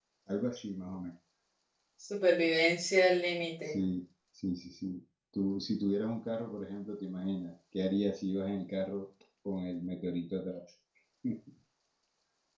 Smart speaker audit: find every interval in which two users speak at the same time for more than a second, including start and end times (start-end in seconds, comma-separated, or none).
none